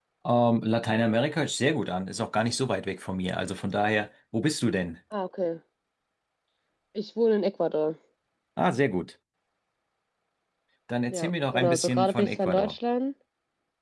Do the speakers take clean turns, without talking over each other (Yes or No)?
No